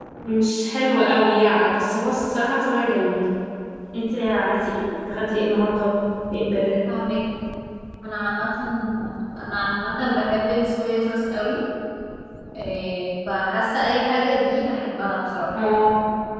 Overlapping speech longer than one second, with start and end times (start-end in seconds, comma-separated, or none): none